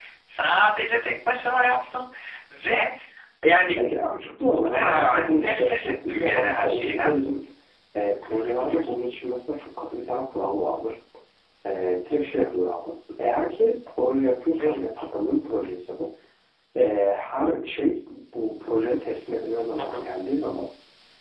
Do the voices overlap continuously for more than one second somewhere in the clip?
Yes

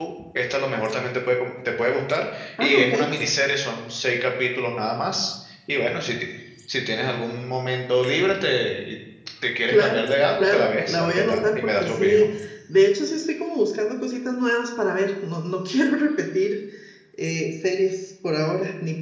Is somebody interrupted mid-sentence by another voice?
Yes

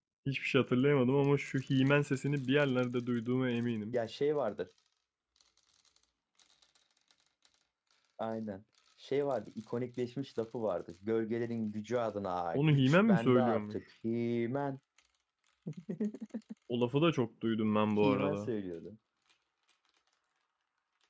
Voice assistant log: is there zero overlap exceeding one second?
No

